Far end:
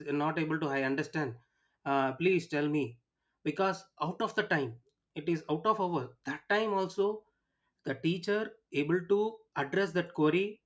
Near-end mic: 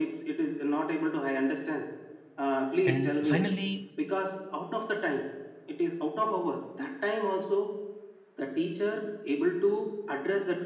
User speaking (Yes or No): Yes